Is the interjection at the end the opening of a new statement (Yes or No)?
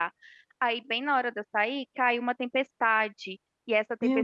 No